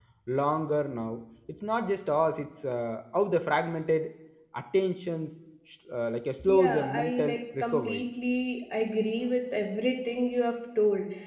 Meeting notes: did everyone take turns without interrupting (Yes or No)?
No